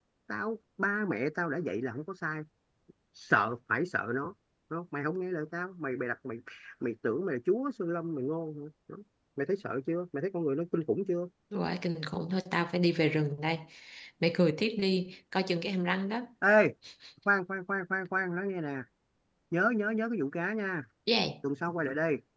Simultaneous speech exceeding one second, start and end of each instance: none

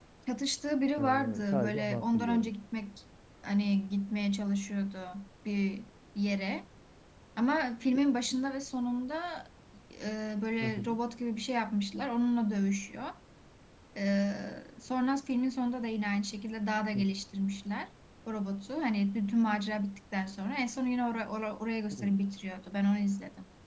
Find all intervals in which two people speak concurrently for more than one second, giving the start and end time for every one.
1.0-2.5

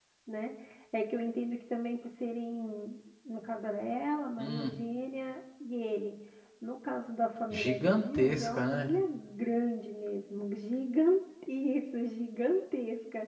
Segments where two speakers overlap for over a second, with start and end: 7.5-8.9

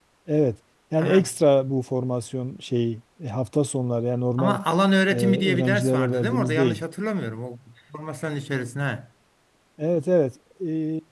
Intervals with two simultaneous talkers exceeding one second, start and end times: 5.1-6.8

